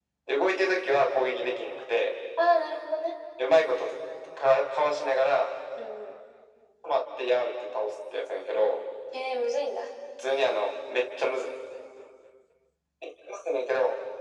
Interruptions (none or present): none